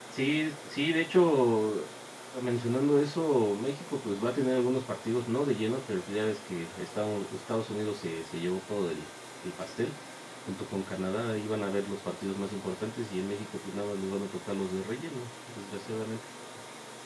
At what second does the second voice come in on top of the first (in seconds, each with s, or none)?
none